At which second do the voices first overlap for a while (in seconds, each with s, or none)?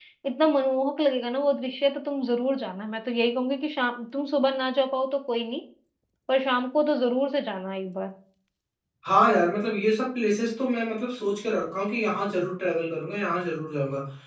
none